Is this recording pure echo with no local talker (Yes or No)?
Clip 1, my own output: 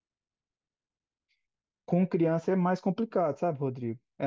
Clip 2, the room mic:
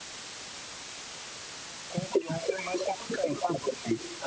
Yes